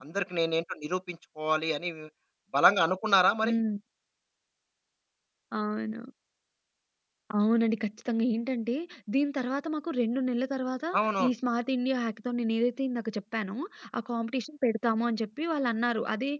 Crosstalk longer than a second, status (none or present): none